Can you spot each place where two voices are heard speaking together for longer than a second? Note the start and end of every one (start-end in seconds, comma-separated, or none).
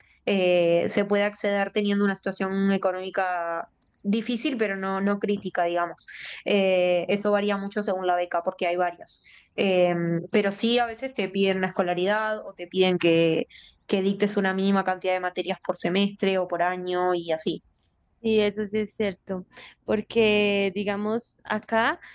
none